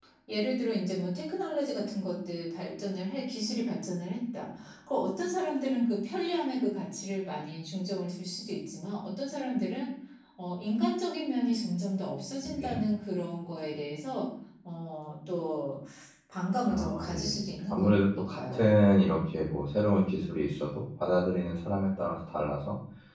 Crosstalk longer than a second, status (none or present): present